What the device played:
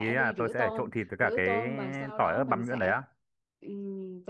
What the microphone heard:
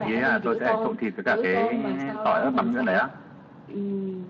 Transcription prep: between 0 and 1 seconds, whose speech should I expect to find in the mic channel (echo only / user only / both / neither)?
echo only